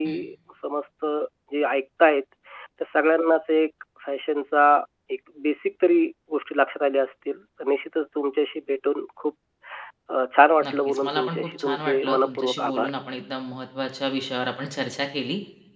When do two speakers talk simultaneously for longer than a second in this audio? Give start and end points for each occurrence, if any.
10.6-12.9

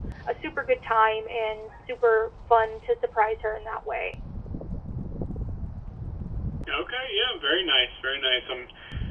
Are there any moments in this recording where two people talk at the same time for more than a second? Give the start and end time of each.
none

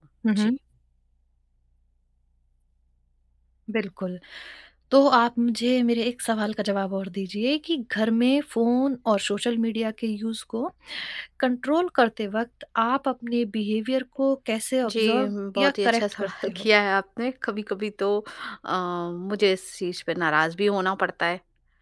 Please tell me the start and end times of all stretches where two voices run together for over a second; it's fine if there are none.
14.9-16.7

